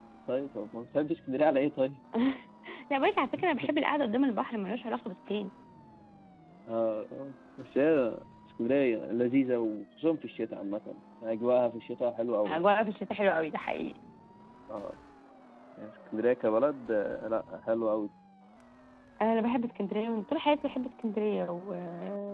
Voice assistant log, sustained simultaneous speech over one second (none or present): none